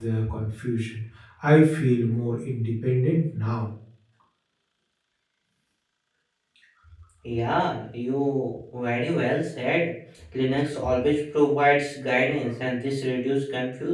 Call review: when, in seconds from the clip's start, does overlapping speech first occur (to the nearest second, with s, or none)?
none